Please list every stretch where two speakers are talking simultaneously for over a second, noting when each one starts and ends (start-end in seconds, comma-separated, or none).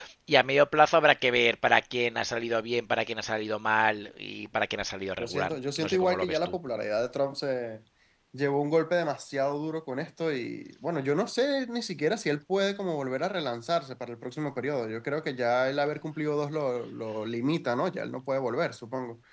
5.2-6.5